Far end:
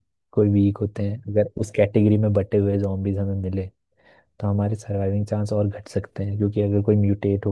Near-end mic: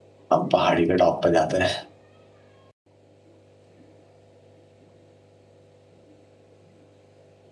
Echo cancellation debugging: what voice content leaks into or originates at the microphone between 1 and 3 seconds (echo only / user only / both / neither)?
user only